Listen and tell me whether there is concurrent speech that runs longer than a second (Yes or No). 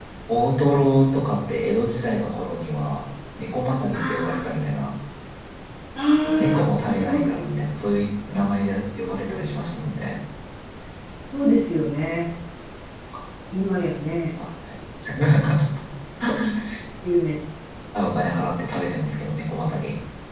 Yes